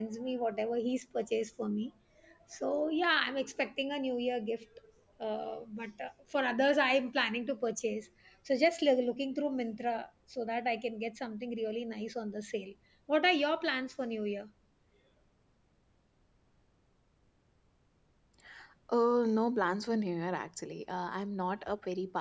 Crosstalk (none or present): none